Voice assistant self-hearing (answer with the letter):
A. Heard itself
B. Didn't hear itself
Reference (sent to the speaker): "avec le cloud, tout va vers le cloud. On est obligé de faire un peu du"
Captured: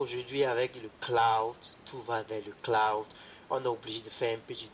A